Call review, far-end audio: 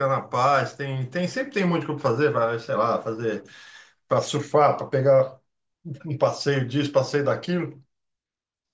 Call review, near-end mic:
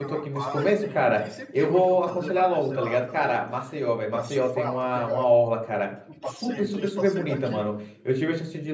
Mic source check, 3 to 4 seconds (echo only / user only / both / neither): both